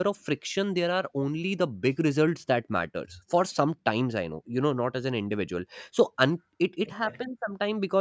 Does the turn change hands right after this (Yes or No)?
No